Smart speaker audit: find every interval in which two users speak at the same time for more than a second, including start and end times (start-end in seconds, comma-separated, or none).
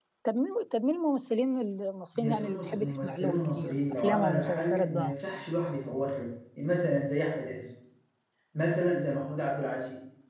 2.1-5.2